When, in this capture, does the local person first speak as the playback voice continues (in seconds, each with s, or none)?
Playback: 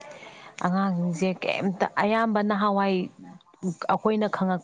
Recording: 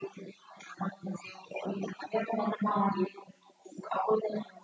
none